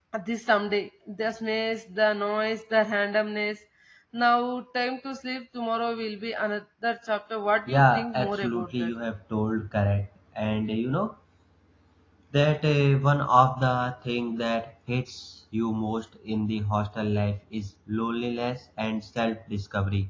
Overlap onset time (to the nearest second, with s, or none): 8 s